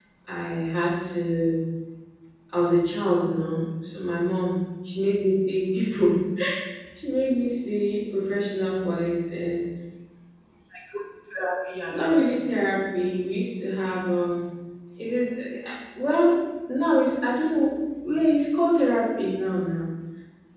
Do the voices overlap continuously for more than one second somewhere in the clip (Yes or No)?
No